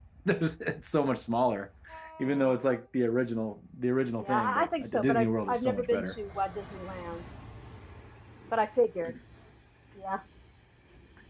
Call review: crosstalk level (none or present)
present